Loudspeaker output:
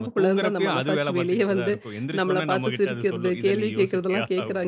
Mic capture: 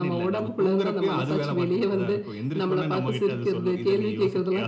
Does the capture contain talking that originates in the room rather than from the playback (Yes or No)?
No